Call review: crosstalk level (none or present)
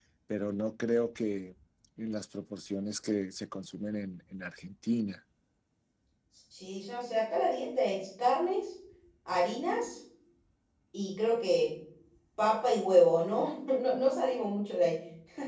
none